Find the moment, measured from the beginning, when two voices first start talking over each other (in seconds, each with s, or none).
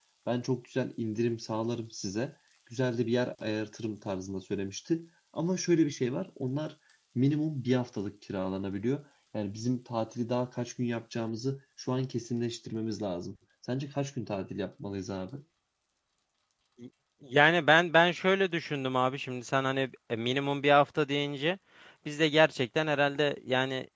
none